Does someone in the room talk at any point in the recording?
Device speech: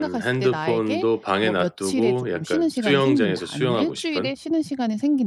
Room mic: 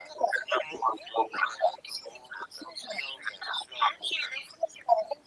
No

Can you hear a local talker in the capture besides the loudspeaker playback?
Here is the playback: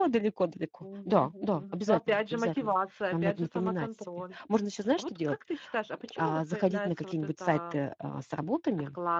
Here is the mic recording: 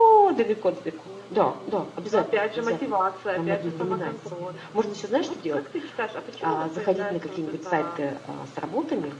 Yes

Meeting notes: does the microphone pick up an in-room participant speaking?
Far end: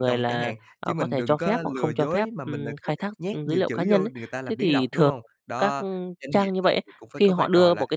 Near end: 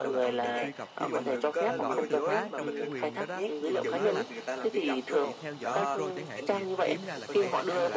Yes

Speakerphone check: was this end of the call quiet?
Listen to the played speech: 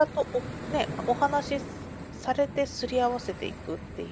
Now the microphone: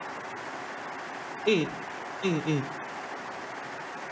No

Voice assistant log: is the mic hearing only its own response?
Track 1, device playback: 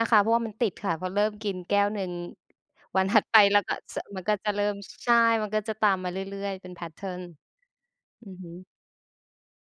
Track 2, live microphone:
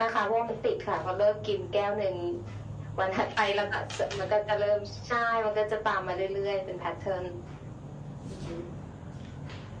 Yes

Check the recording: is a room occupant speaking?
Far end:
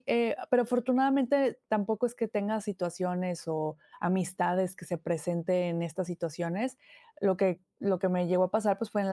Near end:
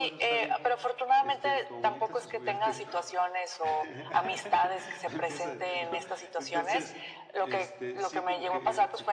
Yes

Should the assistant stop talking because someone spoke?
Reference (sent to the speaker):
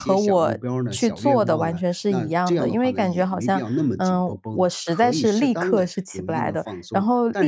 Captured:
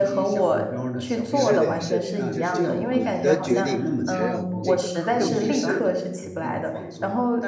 Yes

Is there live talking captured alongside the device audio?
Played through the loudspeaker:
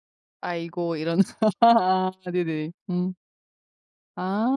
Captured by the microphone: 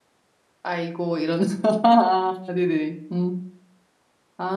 No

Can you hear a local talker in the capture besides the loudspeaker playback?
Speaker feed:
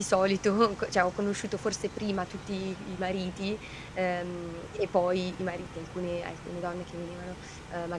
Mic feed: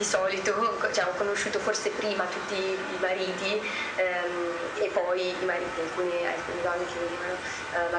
No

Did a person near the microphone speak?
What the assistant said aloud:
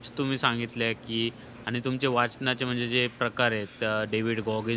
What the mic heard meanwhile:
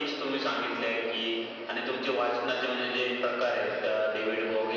No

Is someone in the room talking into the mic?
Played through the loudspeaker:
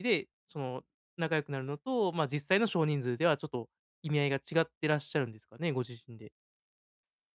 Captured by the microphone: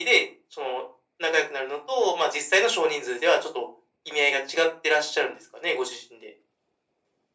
No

